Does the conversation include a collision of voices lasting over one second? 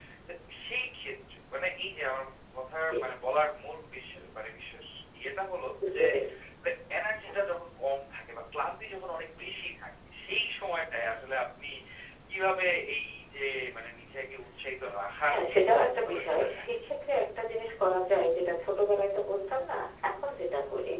Yes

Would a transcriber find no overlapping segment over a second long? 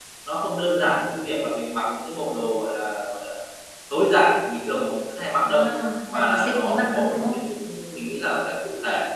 No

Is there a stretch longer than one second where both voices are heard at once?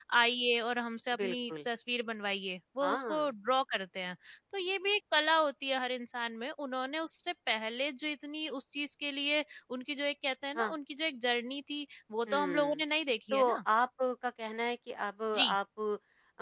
No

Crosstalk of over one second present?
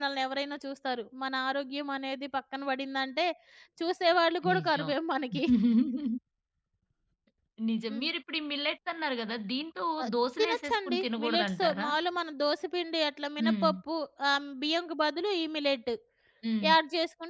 Yes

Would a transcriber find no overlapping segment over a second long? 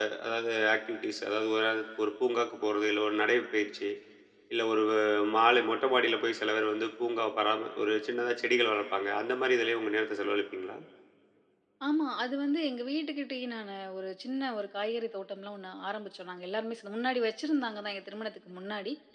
Yes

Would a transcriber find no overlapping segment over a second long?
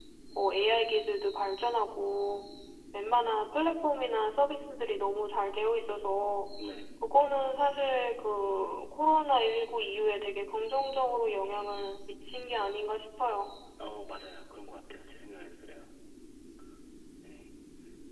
Yes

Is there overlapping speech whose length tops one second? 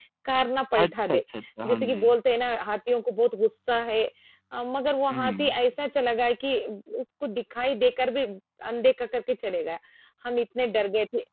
No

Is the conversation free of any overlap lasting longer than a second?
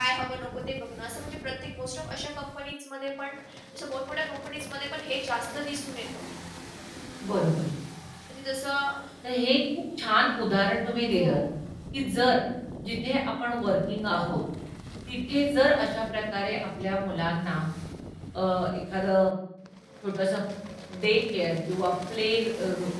Yes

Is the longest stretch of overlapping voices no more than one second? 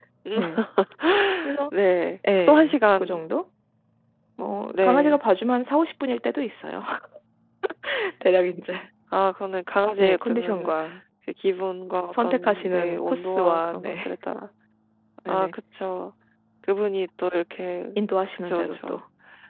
No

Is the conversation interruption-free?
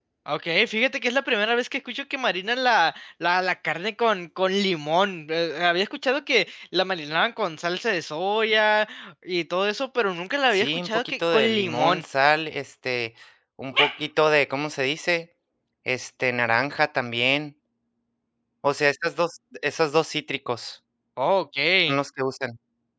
No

